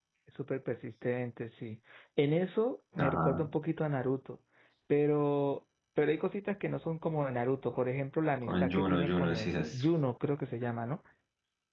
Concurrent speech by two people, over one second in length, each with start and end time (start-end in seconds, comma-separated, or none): 8.4-9.8